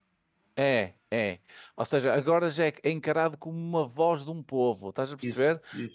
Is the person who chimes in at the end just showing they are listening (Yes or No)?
Yes